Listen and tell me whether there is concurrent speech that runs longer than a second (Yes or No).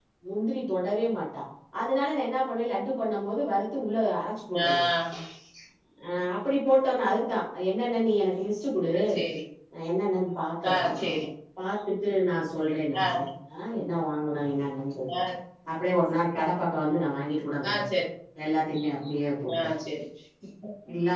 No